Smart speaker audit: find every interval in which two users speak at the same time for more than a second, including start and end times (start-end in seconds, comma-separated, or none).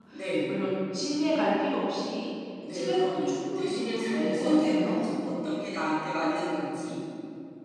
2.7-5.1